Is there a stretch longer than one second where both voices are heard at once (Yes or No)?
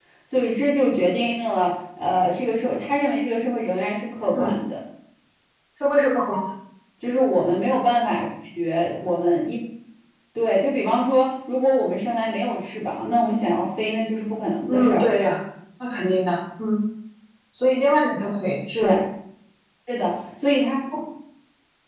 No